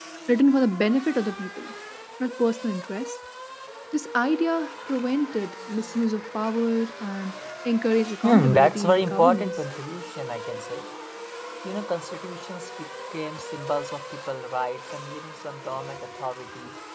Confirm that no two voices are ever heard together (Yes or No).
No